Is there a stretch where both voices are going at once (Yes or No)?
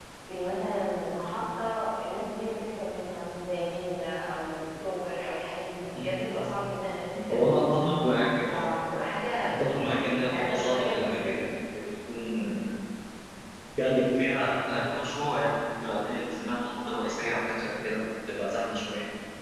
Yes